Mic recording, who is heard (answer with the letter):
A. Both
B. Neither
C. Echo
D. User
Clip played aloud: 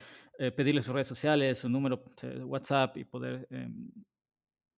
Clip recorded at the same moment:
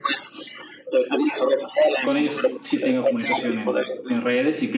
A